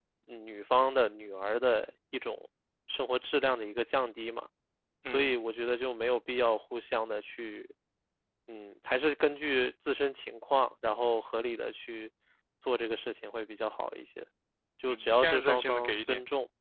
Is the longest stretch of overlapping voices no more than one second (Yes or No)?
No